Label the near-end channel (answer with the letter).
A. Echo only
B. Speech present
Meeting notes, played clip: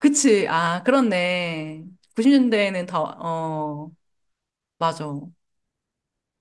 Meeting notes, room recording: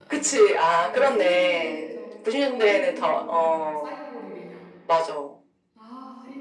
B